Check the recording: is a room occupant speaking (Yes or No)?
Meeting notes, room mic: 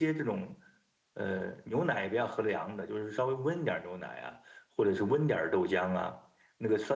Yes